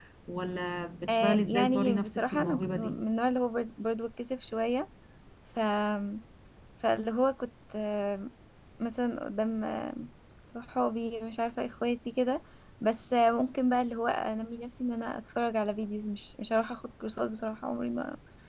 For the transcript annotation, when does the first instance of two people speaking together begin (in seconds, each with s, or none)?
1.1 s